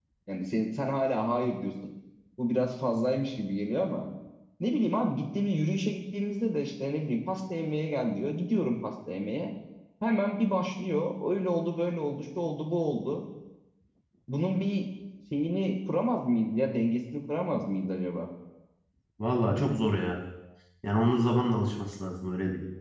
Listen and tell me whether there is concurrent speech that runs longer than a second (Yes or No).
No